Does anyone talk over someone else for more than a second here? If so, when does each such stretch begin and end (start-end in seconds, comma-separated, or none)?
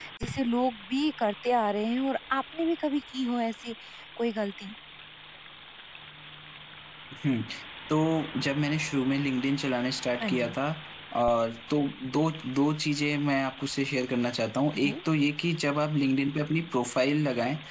none